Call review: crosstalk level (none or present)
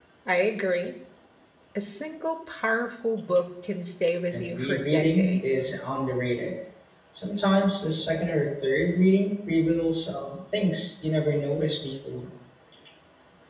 present